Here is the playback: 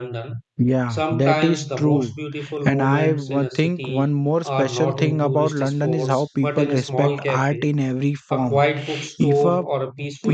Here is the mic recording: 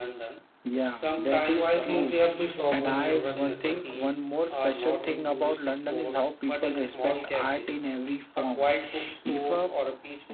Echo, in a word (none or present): present